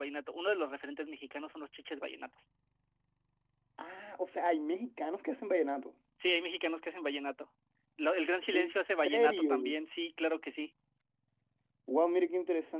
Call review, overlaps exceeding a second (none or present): present